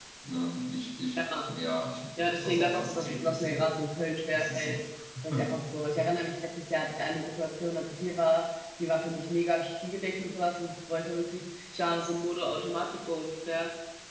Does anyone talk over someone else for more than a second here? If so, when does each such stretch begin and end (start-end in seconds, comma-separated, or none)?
2.2-3.7